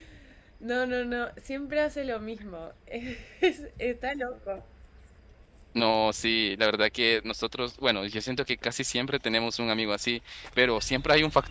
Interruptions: none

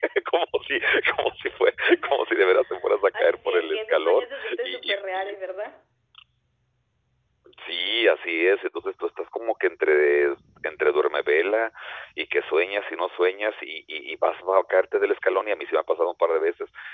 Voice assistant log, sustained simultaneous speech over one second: present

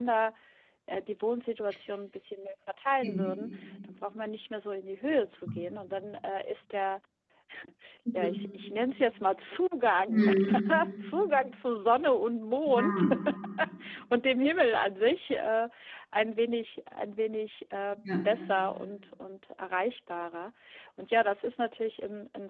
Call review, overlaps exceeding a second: none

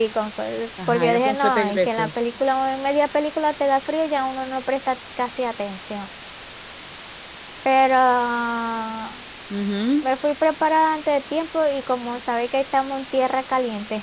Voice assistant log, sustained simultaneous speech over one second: present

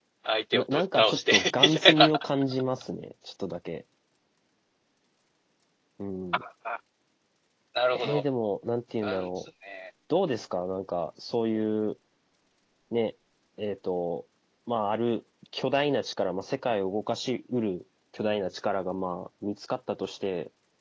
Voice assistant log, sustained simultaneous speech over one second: present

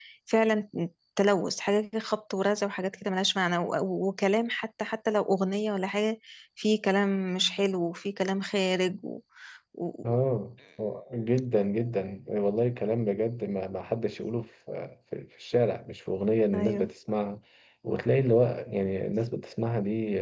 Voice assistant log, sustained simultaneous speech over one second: none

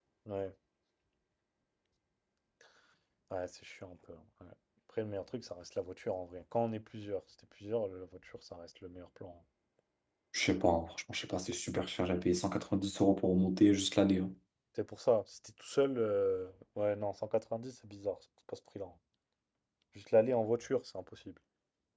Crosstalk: none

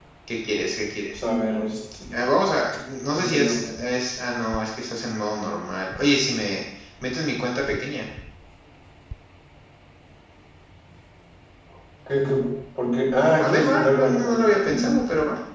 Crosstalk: present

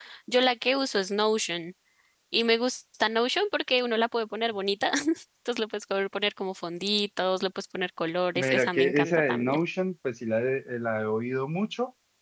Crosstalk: present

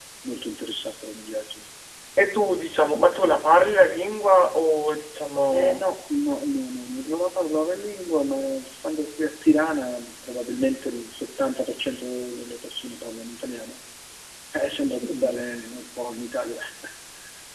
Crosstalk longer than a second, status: none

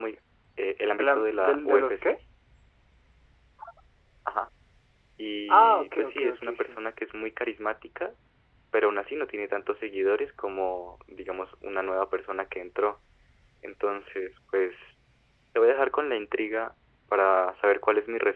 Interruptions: present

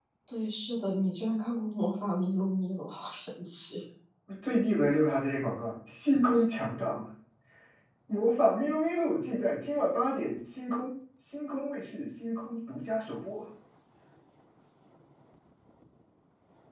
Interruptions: none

